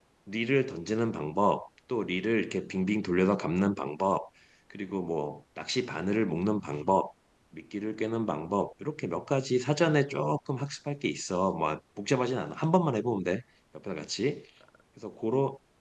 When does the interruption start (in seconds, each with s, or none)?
none